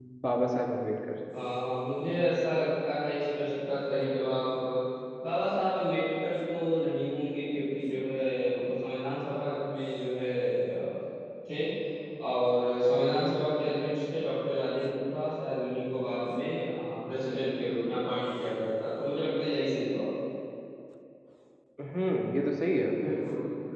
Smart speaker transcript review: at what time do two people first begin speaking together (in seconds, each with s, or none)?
none